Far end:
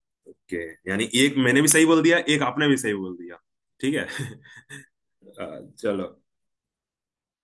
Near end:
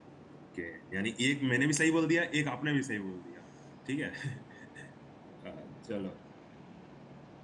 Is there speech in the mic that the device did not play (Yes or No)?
No